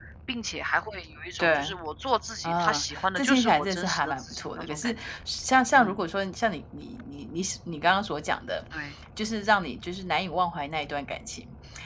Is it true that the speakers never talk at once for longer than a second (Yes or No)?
No